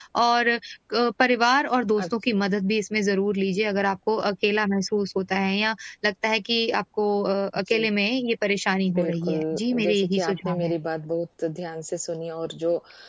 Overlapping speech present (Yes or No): Yes